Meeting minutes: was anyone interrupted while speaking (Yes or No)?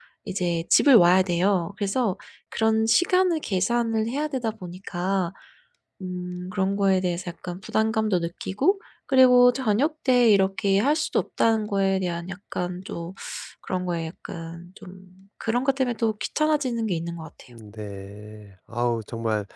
No